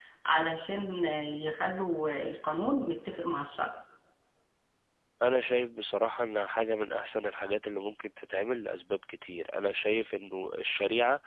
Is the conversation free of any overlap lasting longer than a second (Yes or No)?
Yes